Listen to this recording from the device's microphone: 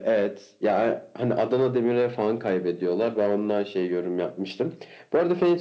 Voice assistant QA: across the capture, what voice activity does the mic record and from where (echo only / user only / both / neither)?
echo only